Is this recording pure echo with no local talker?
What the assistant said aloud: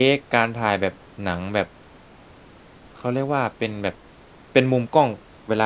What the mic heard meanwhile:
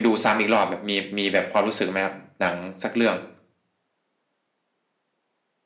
No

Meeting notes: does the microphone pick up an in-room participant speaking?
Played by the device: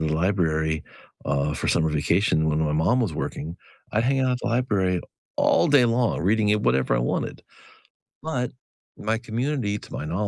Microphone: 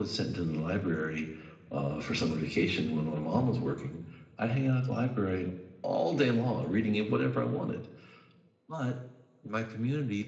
No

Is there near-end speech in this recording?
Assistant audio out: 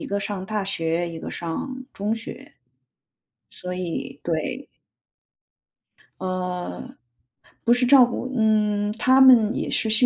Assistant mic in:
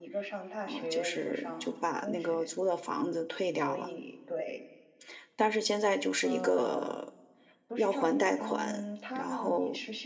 Yes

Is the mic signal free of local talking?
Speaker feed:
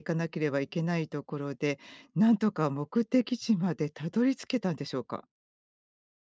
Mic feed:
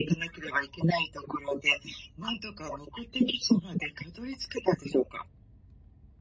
Yes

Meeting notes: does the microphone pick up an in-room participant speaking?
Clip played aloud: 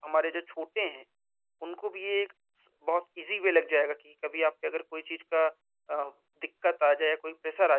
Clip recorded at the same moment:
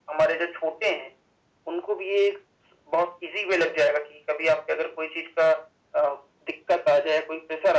No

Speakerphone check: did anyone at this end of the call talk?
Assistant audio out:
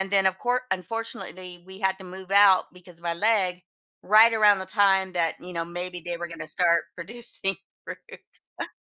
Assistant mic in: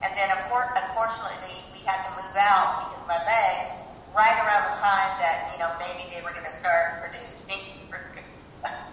No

